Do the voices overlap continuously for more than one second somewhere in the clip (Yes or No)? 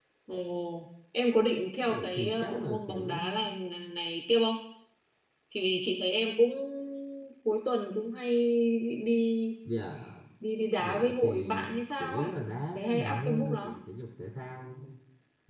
Yes